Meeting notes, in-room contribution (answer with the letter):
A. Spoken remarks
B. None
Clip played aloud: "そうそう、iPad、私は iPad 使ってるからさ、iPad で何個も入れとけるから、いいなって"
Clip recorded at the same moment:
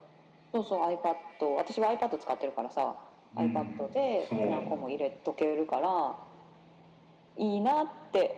A